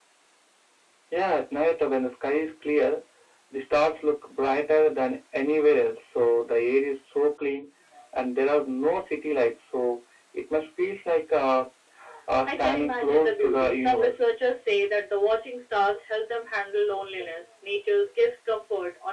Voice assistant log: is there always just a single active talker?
No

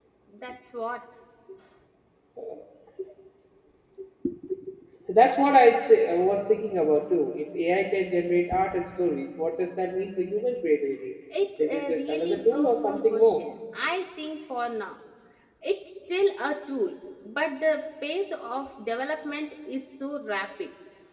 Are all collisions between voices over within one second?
No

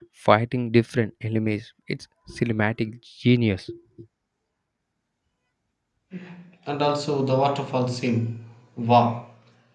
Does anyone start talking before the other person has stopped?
No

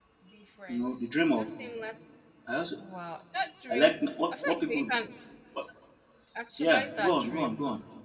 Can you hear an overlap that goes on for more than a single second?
Yes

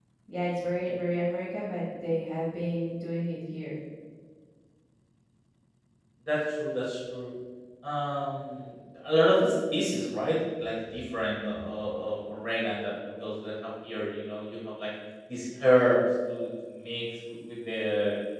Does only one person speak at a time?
Yes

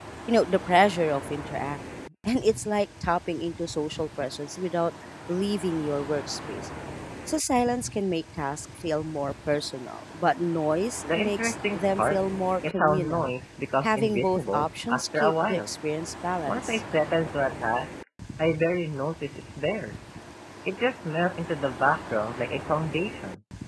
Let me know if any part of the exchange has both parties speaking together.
Yes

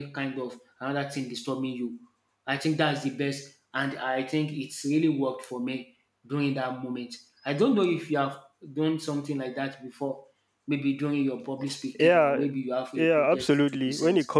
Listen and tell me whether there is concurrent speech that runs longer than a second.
Yes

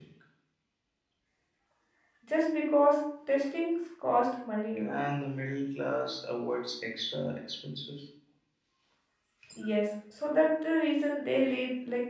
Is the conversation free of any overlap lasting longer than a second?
Yes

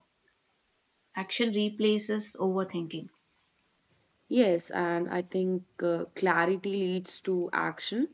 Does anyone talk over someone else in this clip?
No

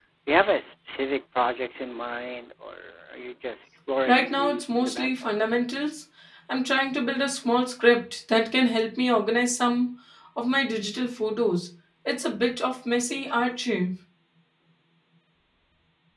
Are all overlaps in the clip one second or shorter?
No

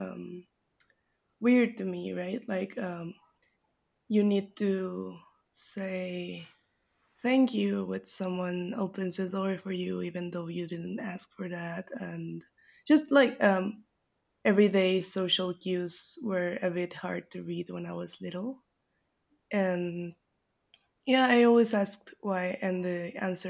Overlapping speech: No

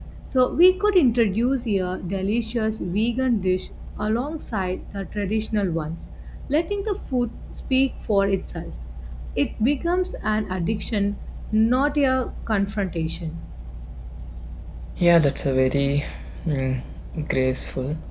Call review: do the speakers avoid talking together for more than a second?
Yes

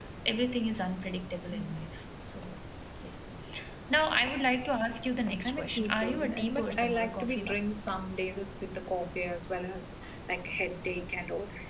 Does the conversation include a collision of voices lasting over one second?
Yes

